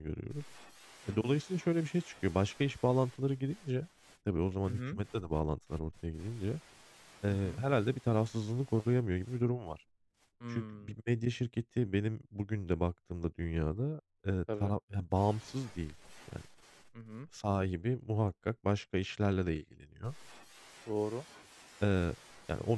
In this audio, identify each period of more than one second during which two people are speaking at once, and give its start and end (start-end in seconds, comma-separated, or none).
none